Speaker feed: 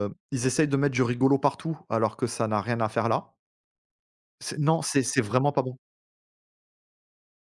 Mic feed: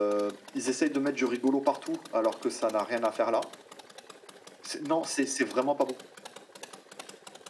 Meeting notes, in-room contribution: none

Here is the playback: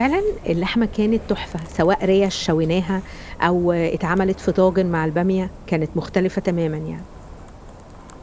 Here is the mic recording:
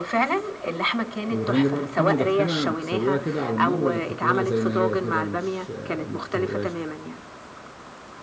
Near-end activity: present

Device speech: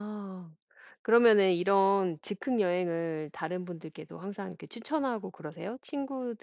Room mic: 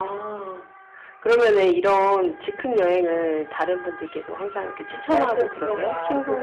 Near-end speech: present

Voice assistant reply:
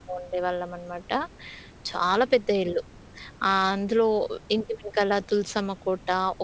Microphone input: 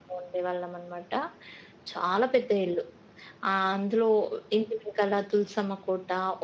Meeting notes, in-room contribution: none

